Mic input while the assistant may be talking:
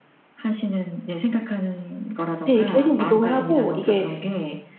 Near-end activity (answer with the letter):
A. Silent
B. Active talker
B